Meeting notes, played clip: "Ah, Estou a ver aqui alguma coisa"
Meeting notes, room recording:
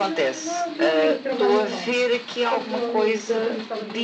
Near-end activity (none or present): present